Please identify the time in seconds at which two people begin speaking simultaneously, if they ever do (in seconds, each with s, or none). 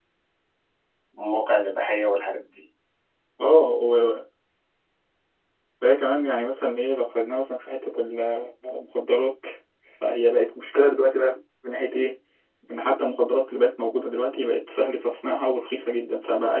none